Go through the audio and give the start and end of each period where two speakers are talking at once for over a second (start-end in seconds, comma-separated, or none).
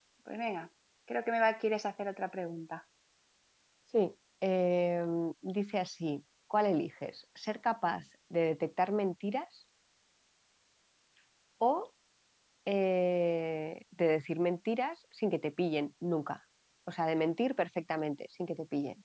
none